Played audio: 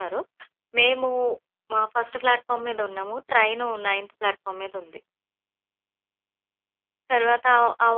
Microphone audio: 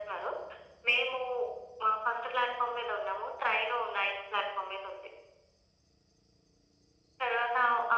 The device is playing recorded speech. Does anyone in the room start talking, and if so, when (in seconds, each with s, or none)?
none